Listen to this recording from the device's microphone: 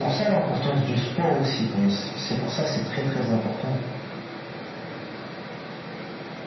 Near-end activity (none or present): none